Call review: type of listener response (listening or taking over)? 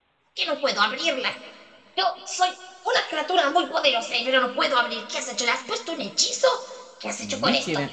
taking over